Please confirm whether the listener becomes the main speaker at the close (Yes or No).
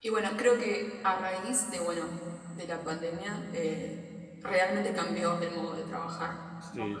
Yes